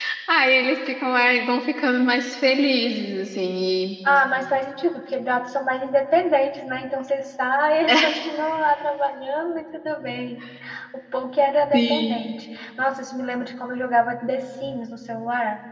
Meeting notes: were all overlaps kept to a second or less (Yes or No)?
Yes